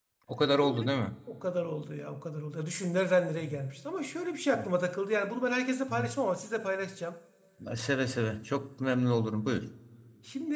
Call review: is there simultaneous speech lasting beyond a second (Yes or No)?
No